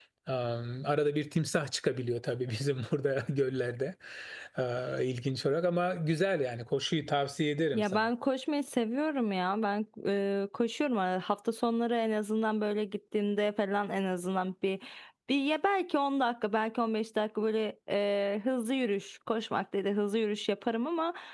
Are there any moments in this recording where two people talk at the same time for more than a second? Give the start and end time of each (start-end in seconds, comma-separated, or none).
none